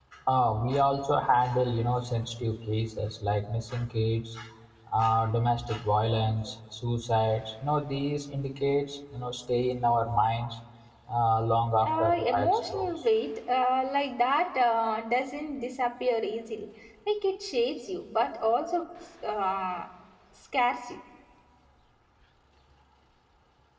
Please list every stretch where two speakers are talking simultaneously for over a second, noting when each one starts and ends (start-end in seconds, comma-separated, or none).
11.8-13.0